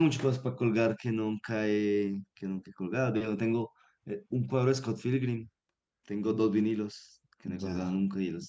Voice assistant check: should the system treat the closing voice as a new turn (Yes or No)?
Yes